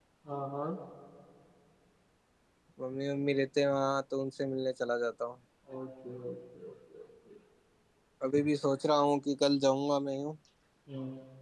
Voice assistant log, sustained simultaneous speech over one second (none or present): none